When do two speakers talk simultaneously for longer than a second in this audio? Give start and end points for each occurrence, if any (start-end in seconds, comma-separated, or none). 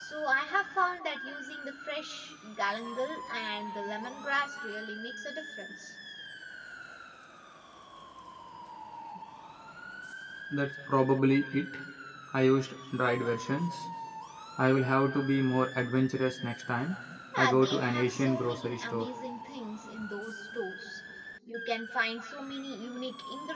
17.4-19.1